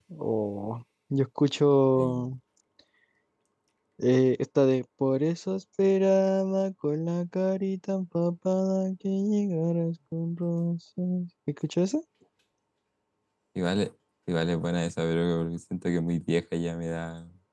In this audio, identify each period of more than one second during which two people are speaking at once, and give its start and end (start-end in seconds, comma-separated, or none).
none